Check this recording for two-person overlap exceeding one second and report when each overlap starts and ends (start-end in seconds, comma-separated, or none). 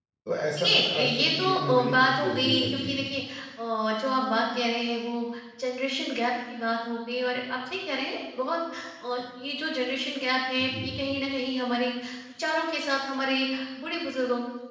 0.6-2.9